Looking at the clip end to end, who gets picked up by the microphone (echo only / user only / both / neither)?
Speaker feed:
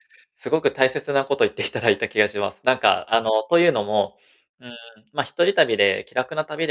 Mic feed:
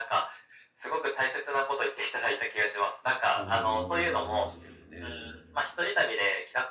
both